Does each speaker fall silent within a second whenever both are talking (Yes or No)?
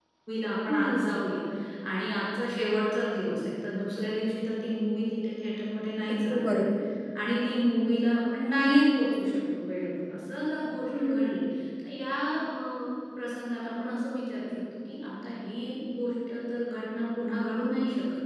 Yes